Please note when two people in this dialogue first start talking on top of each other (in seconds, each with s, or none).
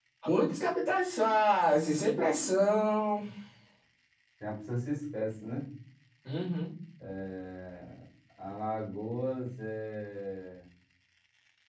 none